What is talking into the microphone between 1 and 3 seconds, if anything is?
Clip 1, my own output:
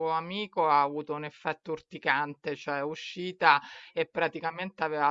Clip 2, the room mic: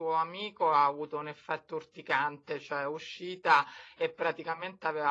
echo only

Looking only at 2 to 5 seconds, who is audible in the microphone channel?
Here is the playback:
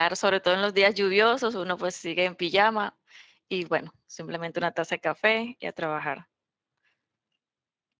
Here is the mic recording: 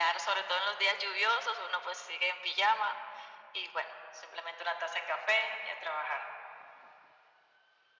echo only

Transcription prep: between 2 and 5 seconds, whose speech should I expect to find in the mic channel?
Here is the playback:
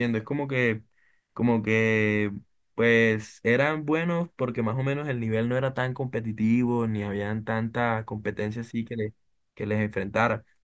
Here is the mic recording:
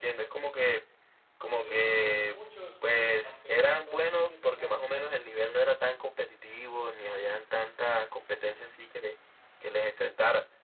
both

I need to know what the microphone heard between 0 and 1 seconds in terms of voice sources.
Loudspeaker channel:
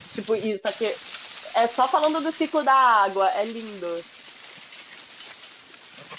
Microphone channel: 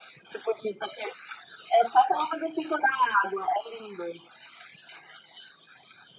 echo only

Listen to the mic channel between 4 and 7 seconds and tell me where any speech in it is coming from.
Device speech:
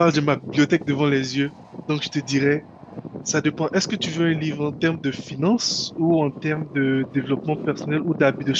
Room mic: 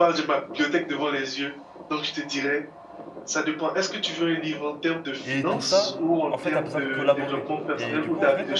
both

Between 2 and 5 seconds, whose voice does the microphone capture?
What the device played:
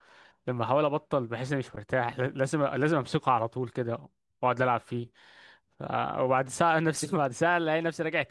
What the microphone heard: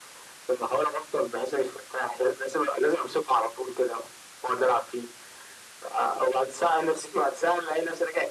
echo only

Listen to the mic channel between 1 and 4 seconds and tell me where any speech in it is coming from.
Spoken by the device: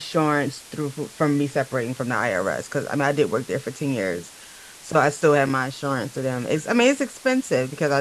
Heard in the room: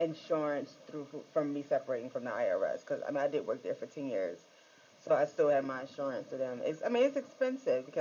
echo only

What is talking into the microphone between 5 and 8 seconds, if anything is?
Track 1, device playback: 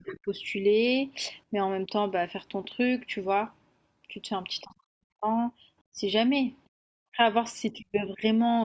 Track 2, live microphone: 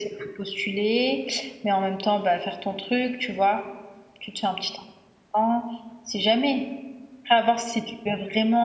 echo only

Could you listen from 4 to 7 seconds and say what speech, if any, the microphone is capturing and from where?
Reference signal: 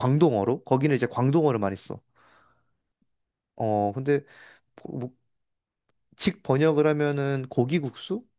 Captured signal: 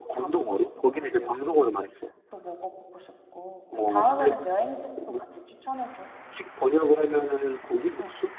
both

